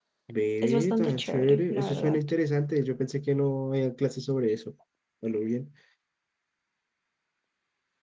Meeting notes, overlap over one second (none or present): present